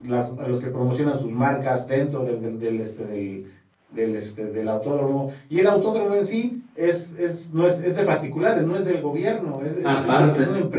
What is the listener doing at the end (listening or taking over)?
listening